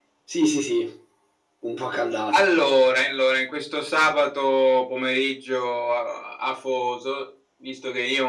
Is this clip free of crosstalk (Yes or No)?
Yes